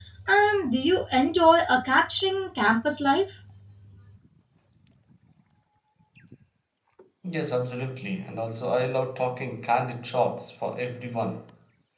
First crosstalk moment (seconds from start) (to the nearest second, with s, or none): none